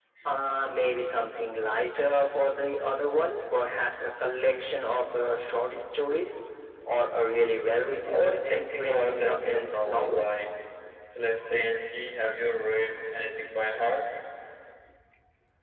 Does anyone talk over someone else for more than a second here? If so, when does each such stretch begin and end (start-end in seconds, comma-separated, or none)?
8.0-10.2